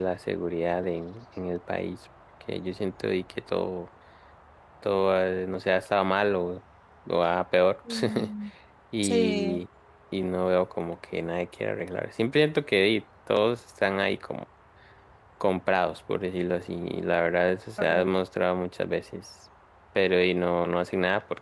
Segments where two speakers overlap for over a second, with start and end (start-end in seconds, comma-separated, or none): none